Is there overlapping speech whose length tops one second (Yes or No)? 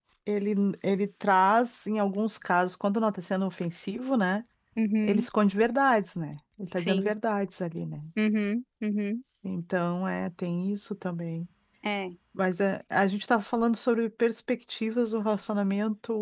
No